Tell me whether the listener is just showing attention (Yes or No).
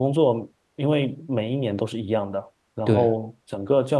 Yes